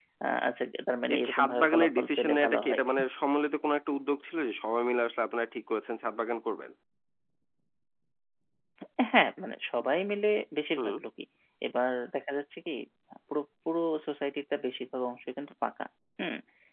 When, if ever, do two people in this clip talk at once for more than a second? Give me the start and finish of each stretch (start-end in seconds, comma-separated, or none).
1.1-2.8